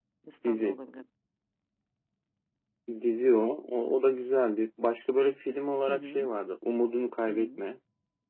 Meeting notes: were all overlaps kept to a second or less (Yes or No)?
Yes